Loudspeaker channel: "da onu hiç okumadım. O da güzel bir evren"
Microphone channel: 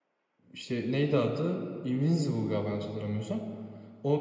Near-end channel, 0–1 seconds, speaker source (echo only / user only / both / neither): user only